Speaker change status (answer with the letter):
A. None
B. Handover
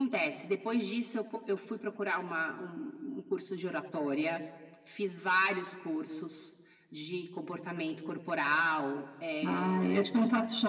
B